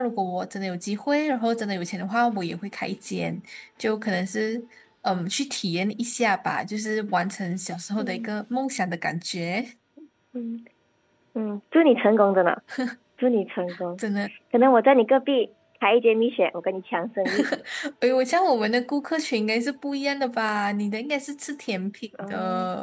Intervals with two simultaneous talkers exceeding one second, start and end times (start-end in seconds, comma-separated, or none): none